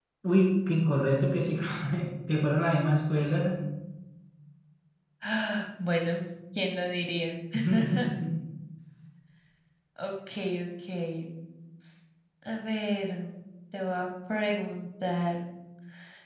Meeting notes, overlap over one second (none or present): none